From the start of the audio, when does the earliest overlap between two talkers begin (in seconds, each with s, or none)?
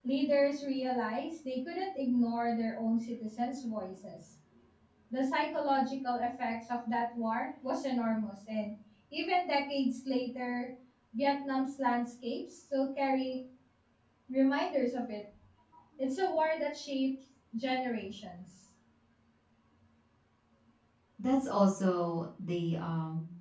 none